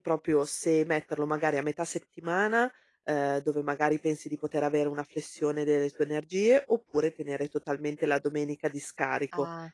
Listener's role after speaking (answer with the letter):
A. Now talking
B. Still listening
B